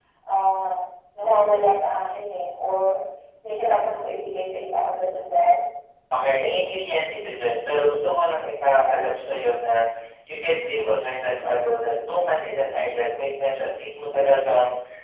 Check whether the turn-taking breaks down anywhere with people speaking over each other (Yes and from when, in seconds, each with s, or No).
No